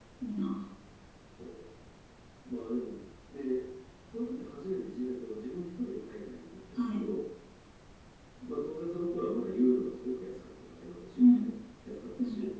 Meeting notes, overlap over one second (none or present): none